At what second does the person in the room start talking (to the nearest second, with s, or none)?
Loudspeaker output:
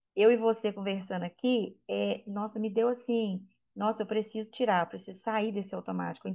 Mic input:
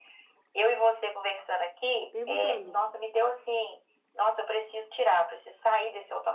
2 s